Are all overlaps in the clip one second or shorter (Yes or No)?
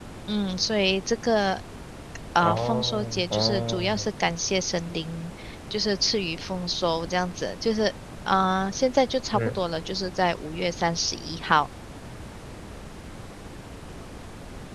No